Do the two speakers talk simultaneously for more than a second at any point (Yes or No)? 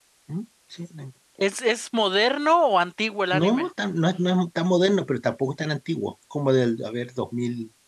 No